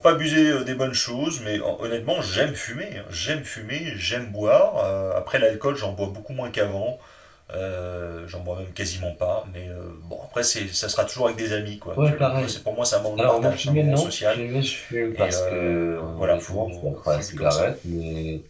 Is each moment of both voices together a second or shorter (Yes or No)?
No